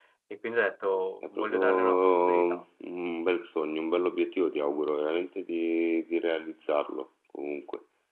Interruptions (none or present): present